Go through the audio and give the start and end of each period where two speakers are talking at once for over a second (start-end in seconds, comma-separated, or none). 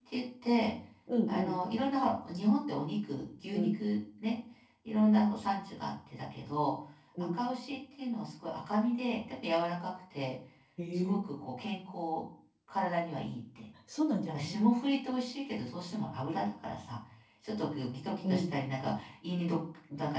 none